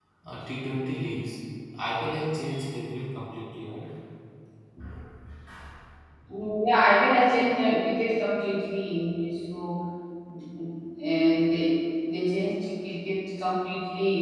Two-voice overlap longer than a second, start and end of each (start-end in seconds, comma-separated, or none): none